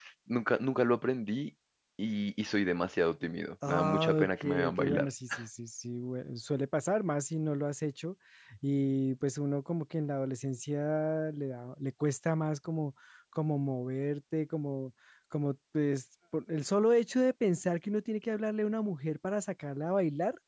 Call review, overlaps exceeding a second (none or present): present